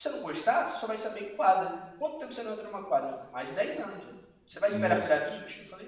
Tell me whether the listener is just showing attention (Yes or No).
Yes